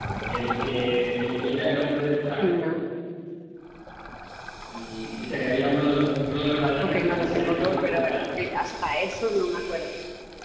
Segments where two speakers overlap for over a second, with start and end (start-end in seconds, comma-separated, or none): 6.8-8.2